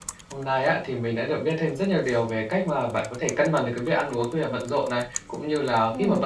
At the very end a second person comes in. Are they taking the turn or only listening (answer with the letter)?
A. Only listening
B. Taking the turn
A